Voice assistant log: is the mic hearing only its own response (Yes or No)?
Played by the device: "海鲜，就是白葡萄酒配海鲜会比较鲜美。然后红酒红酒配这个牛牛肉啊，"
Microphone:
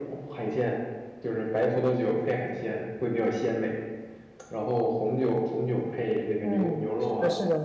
No